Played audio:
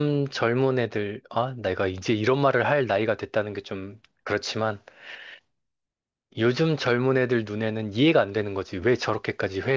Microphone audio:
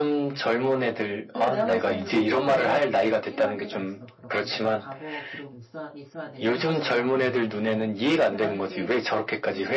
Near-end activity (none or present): present